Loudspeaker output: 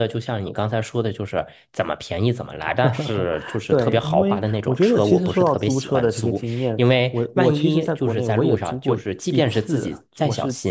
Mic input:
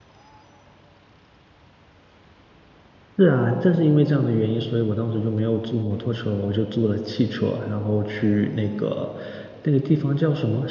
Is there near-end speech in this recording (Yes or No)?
Yes